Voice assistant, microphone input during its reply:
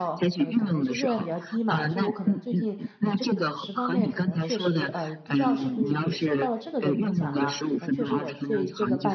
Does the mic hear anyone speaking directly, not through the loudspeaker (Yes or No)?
Yes